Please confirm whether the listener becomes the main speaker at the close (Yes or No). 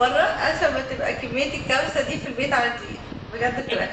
Yes